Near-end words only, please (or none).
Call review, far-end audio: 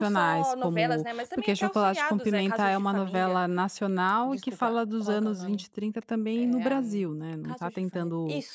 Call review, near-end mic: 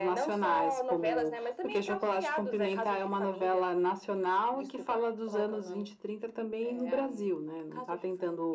none